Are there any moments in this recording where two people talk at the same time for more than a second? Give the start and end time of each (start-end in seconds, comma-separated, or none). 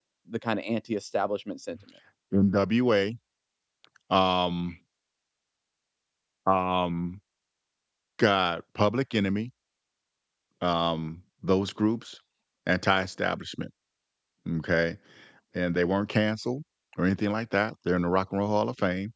none